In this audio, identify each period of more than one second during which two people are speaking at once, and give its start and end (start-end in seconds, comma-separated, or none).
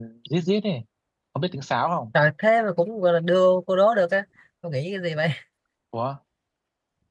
none